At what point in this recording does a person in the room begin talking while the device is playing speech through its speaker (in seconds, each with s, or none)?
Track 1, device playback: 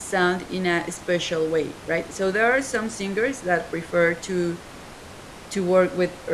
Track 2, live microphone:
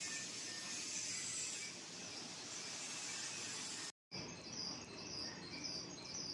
none